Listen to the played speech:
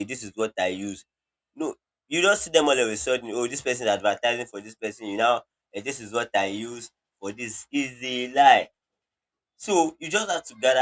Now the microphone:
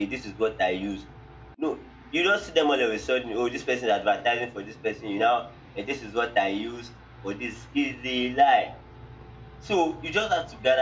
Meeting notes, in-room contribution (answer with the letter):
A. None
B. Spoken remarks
A